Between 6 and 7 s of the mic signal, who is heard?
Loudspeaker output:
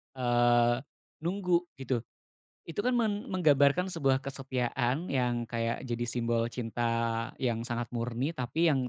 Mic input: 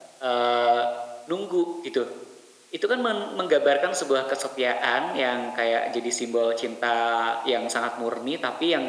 echo only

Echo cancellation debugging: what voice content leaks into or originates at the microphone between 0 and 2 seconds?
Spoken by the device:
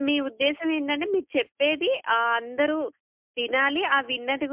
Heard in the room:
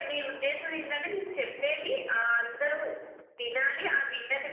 echo only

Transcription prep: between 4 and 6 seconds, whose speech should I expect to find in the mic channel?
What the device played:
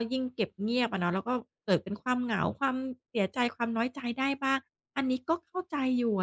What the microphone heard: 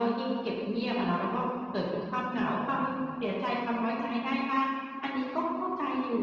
echo only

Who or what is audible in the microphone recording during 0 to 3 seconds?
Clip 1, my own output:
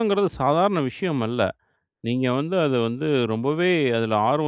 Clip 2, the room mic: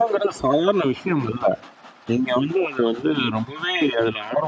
echo only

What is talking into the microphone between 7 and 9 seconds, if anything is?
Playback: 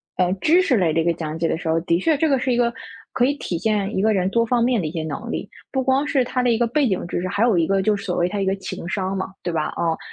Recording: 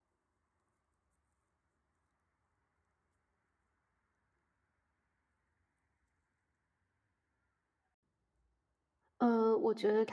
neither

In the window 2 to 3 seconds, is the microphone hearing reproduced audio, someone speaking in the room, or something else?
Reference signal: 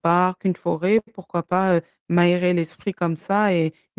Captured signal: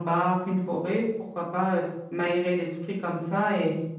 echo only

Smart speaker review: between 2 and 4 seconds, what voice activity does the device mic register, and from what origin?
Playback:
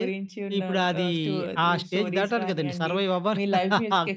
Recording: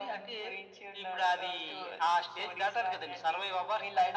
echo only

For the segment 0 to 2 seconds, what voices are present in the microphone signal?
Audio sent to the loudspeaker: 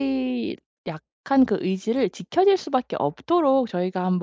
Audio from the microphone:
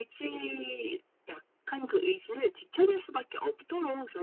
echo only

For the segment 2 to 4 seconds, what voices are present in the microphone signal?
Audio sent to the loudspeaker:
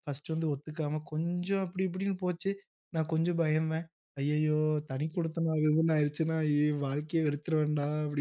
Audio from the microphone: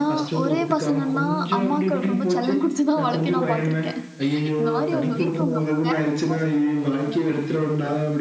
both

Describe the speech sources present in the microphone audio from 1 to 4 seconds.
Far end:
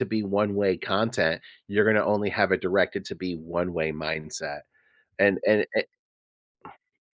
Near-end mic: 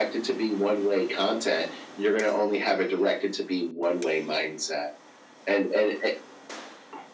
echo only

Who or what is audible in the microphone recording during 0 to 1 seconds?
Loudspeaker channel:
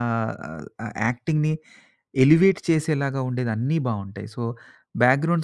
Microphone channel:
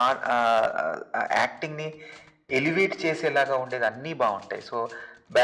echo only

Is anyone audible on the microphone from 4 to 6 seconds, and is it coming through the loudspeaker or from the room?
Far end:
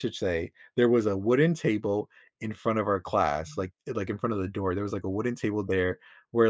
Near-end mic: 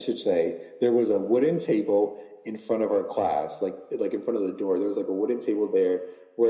echo only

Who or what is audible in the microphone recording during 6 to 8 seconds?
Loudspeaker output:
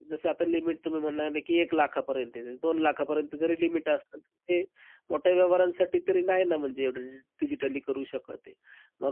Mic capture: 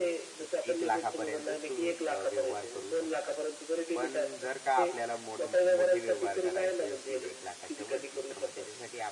both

